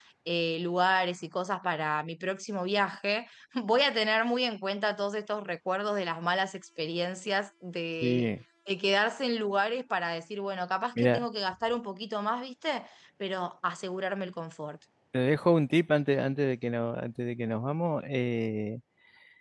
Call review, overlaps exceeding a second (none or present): none